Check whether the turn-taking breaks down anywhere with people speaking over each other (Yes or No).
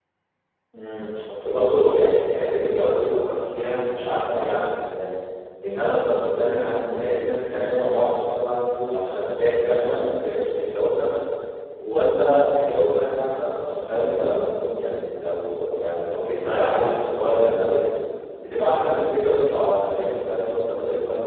No